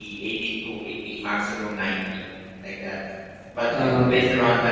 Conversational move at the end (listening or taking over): listening